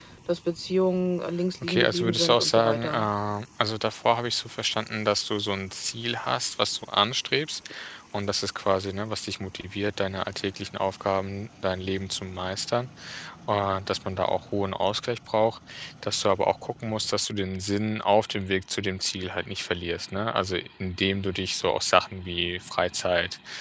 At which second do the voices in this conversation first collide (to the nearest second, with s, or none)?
2 s